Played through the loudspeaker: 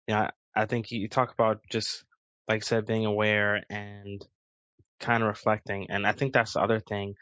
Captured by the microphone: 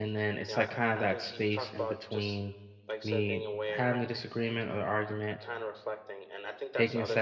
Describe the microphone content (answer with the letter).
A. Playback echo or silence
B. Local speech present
B